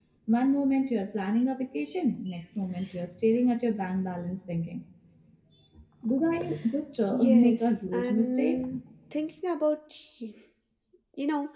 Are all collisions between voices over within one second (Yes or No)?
No